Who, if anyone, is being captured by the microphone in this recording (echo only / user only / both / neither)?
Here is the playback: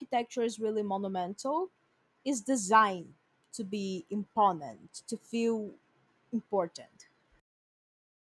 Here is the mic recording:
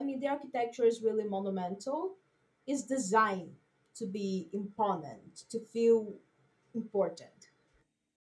echo only